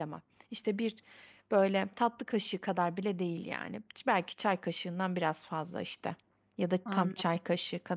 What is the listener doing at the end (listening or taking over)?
listening